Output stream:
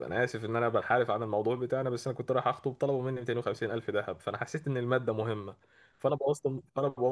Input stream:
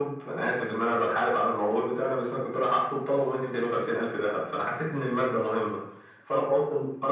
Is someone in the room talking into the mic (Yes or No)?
No